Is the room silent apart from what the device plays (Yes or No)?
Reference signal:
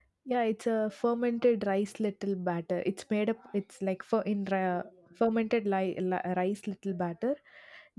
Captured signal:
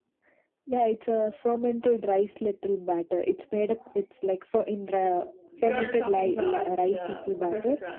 No